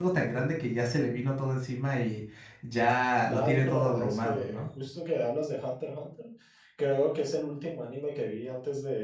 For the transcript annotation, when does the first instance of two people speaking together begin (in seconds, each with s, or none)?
3.2 s